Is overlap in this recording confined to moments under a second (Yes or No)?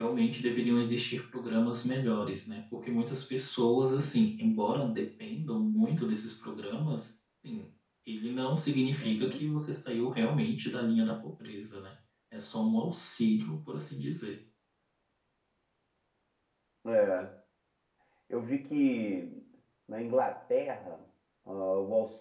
Yes